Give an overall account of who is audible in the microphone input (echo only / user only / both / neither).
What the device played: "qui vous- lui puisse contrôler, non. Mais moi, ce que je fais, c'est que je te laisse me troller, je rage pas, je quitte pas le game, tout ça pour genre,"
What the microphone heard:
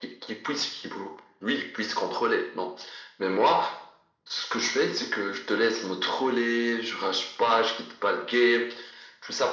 echo only